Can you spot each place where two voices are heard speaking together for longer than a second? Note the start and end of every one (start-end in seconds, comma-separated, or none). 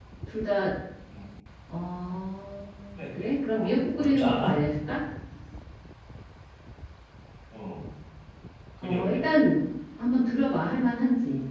3.0-4.6